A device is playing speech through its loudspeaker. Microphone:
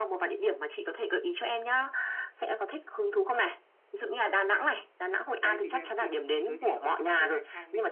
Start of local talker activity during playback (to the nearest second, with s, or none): 5 s